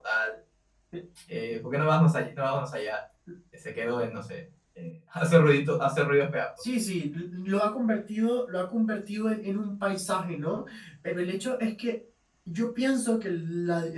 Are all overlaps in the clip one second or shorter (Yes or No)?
Yes